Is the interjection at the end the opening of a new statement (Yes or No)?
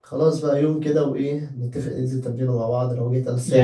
Yes